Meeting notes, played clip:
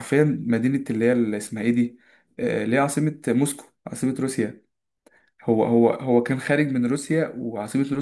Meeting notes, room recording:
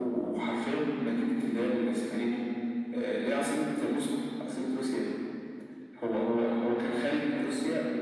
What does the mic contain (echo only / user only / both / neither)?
echo only